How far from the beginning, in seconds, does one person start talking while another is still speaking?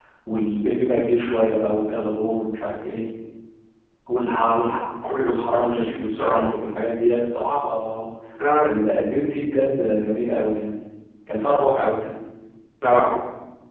5.0 s

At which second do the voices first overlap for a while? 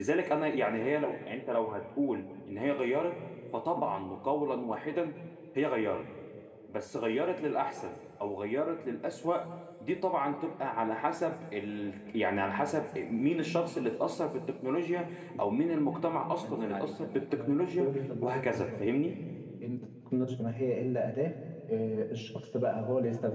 16.3 s

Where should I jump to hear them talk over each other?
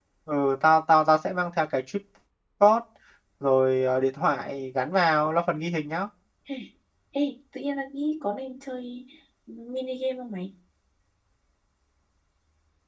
none

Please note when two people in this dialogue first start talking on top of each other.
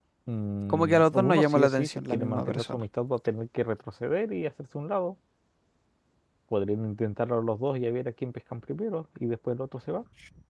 0.7 s

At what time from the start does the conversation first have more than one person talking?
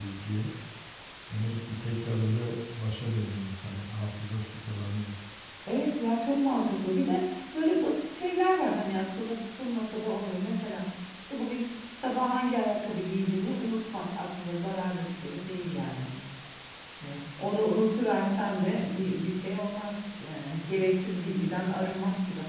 none

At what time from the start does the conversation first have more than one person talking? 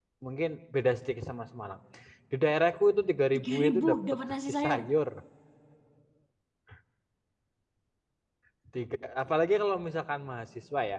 3.3 s

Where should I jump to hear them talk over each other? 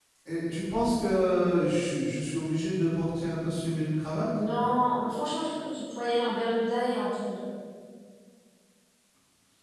none

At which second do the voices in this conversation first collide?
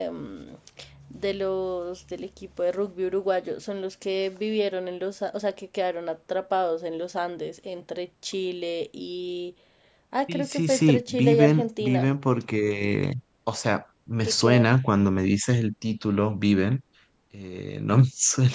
10.3 s

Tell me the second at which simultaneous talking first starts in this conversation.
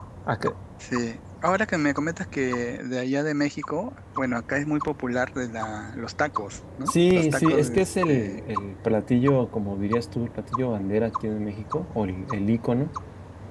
6.9 s

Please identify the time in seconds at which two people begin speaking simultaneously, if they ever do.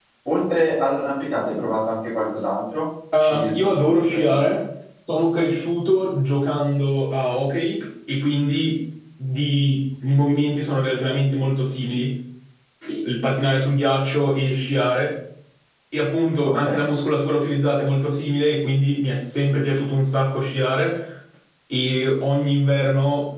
3.2 s

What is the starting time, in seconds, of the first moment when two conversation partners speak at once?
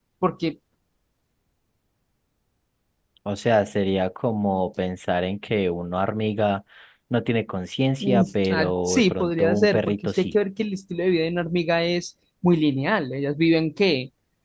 8.0 s

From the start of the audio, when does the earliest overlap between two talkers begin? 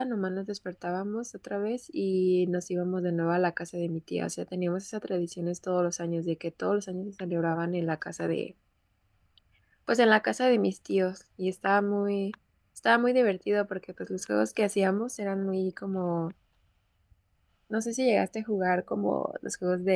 none

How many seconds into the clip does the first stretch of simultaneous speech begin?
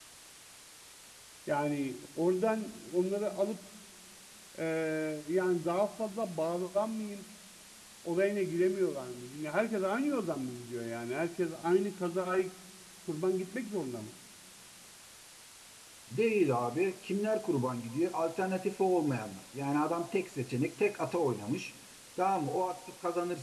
none

